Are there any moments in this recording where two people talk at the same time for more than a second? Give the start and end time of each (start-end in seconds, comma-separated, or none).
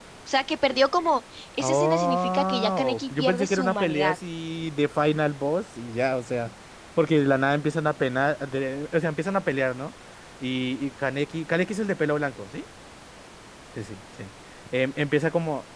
1.6-4.2